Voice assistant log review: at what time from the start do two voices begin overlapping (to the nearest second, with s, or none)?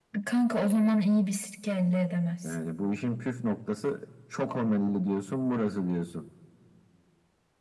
none